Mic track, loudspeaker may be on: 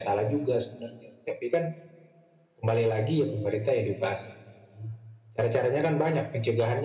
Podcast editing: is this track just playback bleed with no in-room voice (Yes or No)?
Yes